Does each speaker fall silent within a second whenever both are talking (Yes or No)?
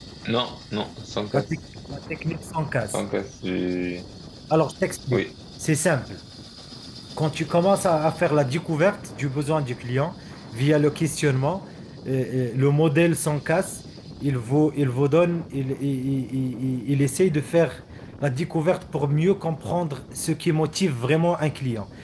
Yes